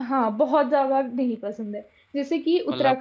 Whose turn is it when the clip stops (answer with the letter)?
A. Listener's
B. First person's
B